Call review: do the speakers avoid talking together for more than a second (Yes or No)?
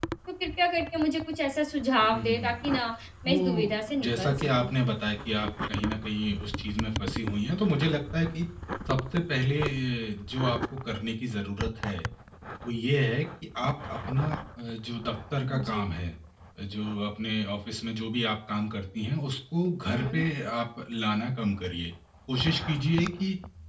No